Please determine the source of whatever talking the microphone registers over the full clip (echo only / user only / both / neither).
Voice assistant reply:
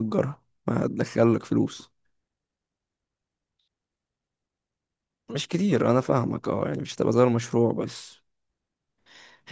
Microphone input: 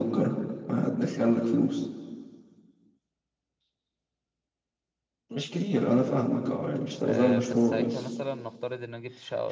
both